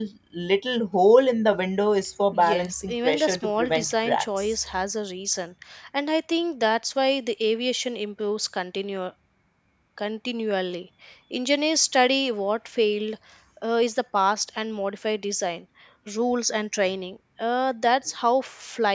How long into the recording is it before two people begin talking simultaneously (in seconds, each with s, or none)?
2.3 s